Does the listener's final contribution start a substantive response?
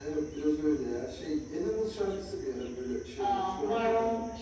Yes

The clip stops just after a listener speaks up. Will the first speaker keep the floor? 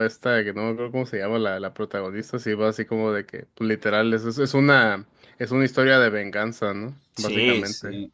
No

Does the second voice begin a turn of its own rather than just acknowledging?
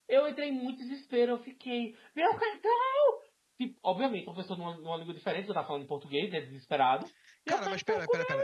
Yes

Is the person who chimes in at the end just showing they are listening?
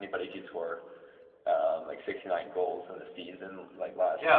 No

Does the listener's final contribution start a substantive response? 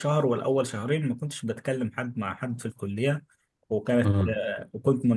No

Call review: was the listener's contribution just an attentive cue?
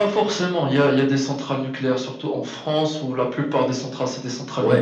No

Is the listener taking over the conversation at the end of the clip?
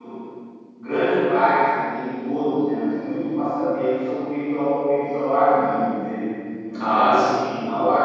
No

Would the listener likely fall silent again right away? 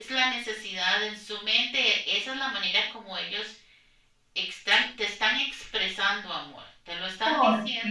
Yes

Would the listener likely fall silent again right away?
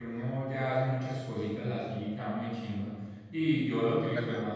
Yes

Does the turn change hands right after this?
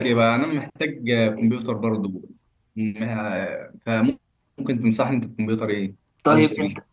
Yes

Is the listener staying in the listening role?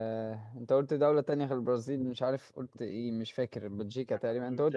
No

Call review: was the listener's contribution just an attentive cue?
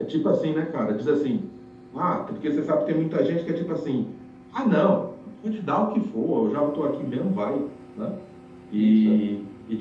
Yes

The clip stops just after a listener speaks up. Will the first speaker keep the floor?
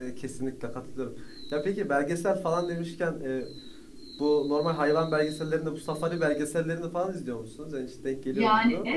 No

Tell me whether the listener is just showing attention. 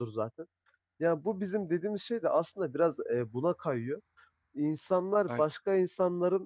Yes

